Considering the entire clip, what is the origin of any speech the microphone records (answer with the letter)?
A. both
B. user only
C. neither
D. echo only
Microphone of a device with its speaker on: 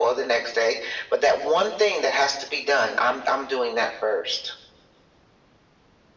D